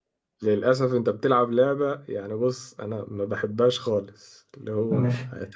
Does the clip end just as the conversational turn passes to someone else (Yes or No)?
No